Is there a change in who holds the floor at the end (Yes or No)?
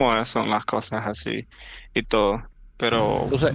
Yes